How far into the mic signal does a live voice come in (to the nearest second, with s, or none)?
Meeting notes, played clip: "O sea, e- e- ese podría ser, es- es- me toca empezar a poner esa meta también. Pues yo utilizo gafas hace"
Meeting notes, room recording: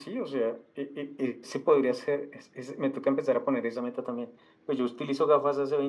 none